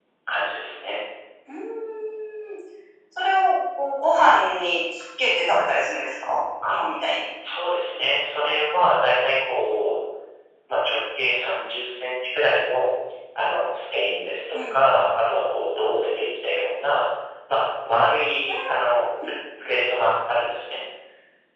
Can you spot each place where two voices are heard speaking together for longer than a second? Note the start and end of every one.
none

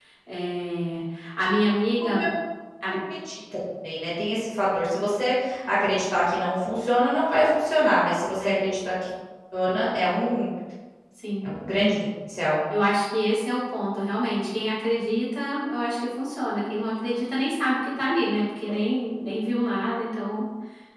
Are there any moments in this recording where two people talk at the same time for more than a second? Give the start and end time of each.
none

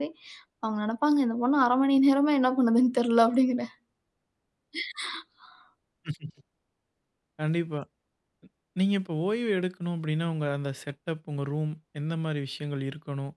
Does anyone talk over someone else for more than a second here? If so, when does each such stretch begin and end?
none

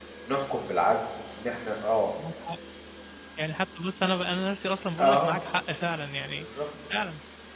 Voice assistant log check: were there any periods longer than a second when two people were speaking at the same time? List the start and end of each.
none

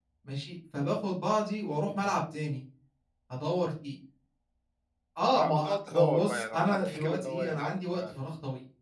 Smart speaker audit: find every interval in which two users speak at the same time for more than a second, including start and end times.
5.3-8.0

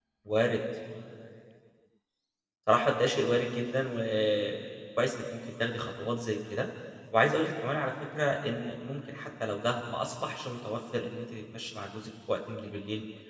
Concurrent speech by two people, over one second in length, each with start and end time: none

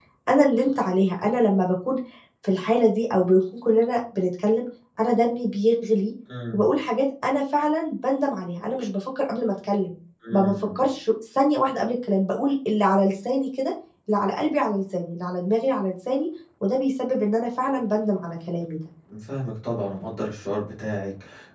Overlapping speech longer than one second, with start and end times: none

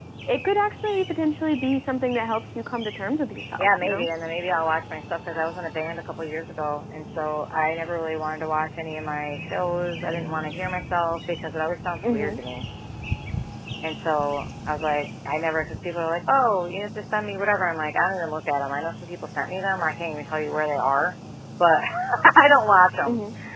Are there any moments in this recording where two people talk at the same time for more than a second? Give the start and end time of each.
none

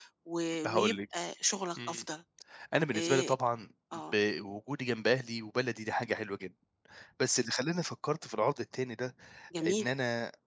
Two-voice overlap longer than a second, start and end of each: none

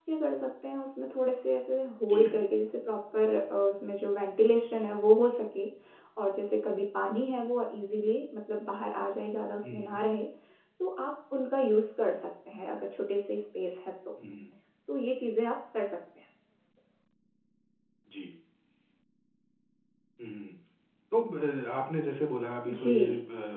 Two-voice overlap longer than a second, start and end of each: none

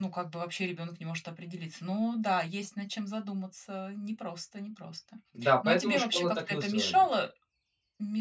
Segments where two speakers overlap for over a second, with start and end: 5.7-7.0

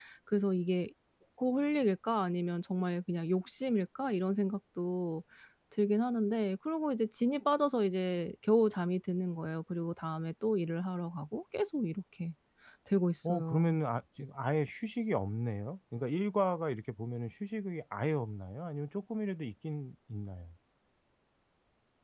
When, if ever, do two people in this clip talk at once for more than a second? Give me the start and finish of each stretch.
none

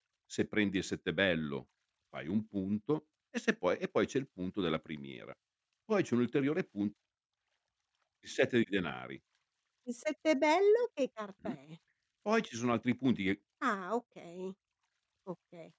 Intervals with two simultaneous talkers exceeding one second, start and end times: none

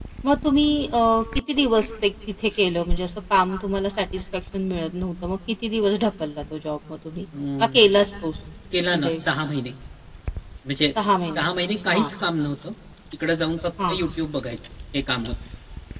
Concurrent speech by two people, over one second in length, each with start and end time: none

